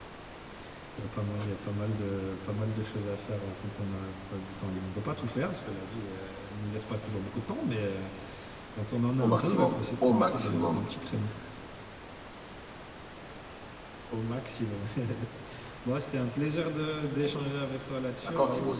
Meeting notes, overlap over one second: present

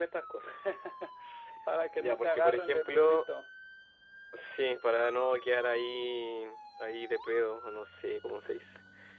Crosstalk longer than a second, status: present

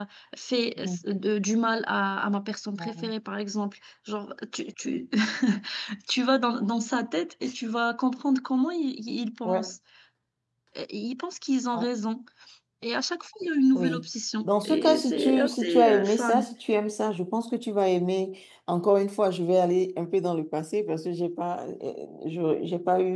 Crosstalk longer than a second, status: present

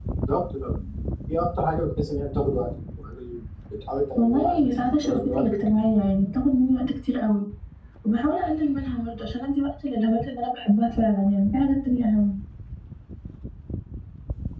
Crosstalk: present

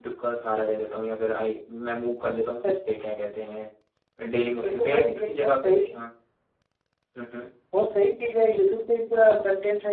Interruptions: present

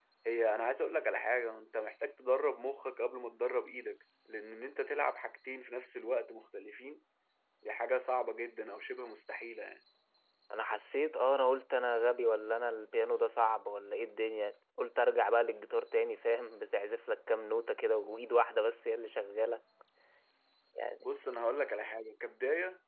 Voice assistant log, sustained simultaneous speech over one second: none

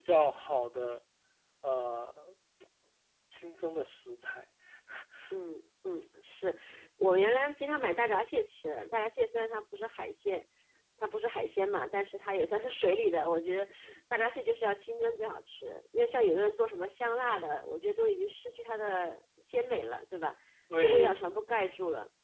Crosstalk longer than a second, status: none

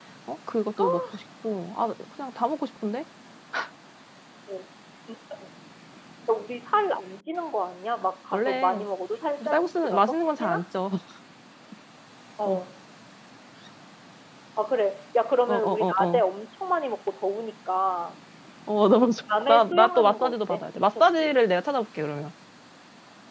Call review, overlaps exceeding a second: present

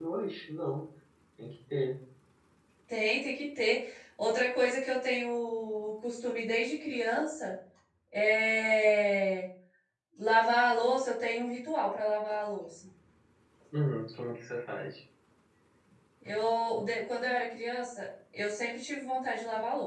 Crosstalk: none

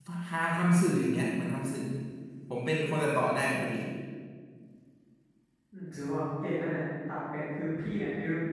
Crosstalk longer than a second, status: none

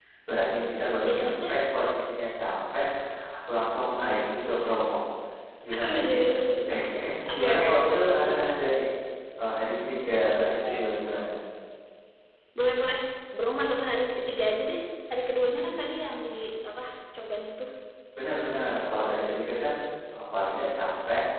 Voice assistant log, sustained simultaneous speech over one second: present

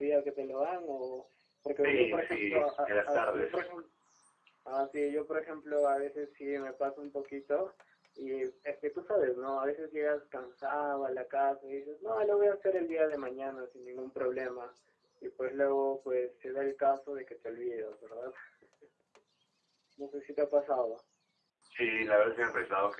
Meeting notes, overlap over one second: present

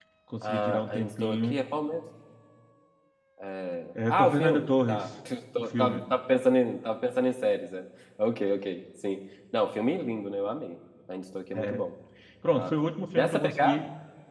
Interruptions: present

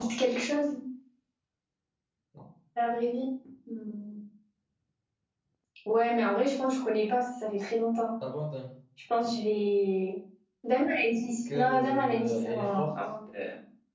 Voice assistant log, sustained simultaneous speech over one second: present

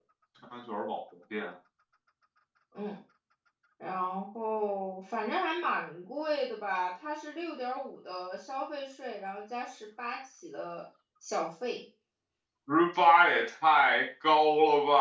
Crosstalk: none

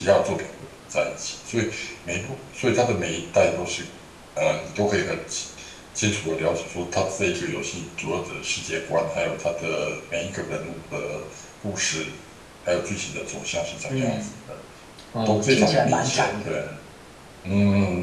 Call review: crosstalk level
present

